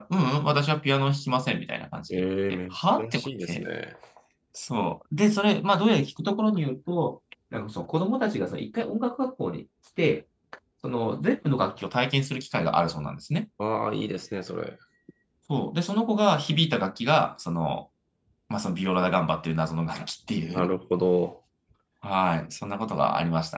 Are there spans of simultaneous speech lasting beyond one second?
Yes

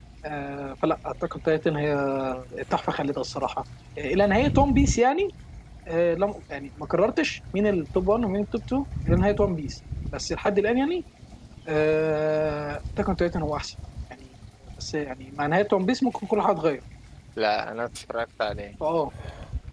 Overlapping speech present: No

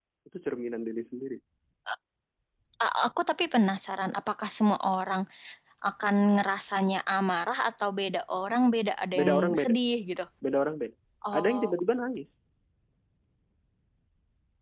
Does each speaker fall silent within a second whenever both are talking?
Yes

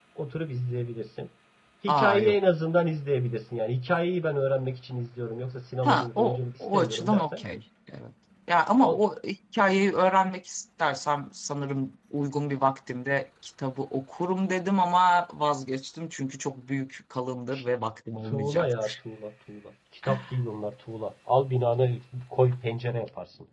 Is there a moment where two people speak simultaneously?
Yes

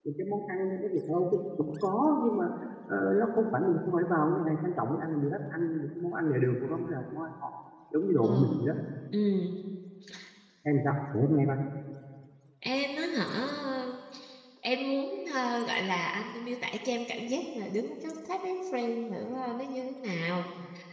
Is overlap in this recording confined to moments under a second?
Yes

